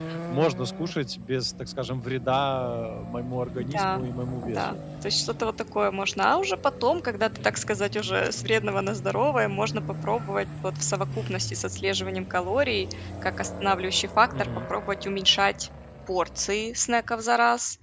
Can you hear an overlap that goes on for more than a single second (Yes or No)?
No